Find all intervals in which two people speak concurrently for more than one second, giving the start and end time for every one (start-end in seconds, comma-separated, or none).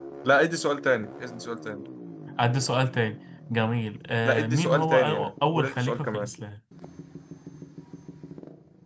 4.2-6.3